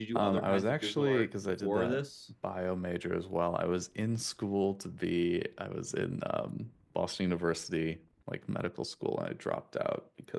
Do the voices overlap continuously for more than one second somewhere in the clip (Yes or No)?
Yes